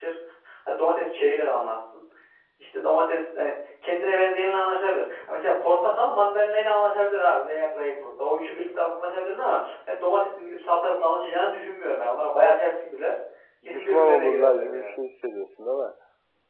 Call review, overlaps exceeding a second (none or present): present